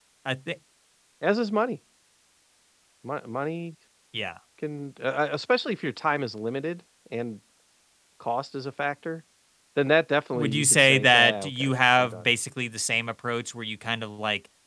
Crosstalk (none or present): present